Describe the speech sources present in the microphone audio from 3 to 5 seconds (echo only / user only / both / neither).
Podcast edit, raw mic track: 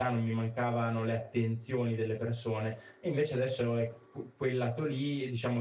user only